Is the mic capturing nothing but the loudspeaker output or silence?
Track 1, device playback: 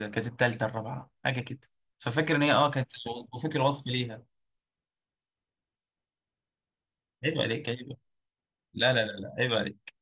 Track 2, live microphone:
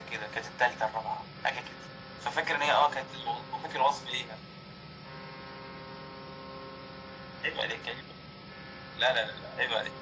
Yes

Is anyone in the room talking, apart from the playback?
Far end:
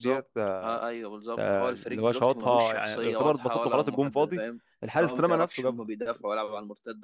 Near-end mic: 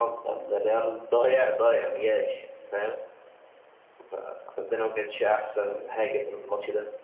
Yes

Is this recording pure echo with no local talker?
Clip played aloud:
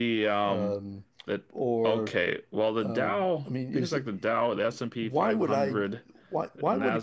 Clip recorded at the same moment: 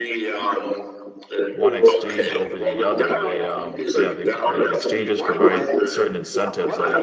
No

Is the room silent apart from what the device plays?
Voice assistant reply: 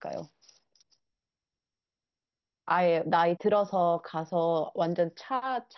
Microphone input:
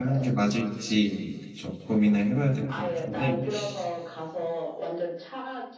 No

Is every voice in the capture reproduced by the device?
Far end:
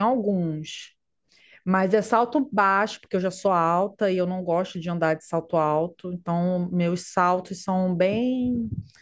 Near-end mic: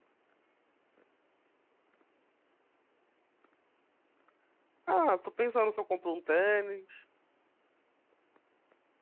No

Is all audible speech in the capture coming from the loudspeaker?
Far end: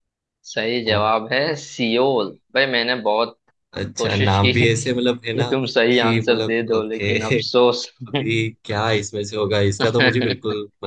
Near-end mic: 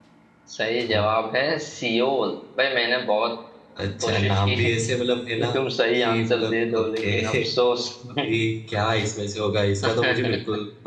Yes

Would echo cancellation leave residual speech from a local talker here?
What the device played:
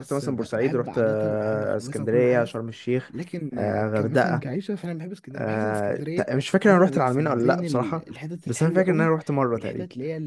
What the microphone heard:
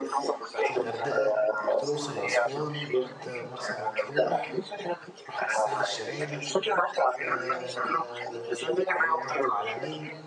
Yes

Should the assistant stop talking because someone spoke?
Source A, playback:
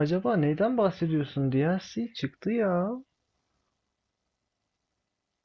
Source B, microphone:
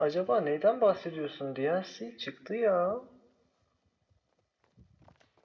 No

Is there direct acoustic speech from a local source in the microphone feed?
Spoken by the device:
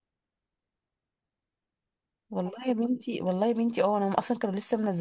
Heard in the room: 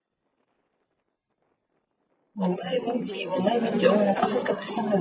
Yes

